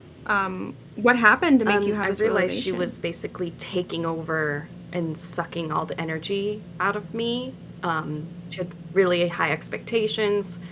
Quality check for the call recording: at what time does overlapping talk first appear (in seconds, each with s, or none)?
1.6 s